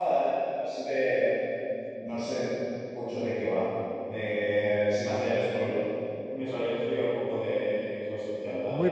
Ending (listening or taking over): taking over